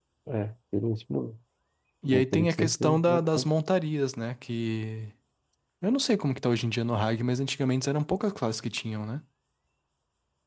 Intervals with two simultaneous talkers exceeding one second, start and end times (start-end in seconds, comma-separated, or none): 2.1-3.4